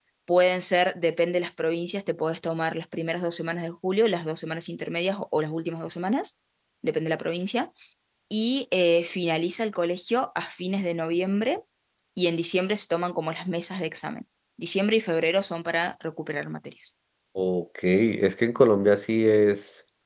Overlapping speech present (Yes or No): No